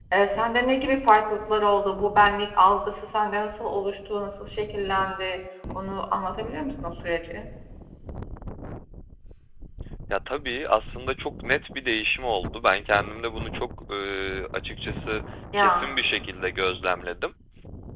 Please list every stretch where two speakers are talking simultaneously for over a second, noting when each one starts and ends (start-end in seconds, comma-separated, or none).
none